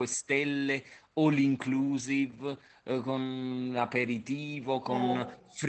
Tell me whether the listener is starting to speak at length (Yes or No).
No